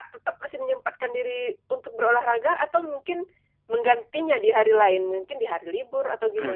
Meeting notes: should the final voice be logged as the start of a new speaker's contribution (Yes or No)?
Yes